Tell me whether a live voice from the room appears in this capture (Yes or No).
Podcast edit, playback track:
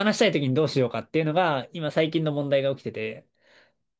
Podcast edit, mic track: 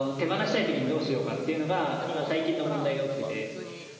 Yes